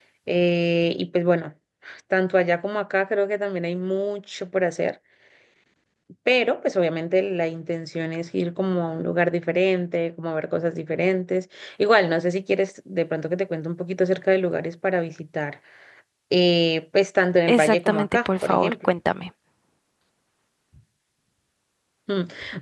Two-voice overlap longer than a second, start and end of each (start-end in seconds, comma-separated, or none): 17.5-18.9